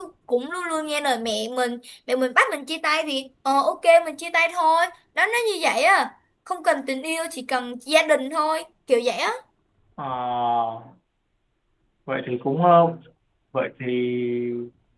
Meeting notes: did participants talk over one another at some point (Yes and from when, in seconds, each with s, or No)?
No